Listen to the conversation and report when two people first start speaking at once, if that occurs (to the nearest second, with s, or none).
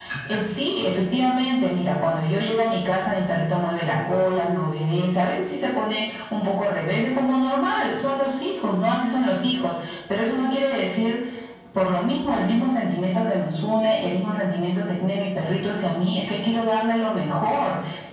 none